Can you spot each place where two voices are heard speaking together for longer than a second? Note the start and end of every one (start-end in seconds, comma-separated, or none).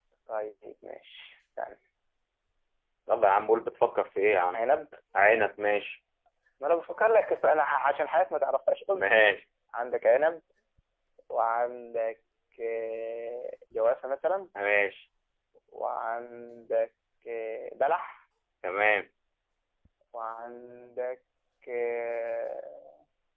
none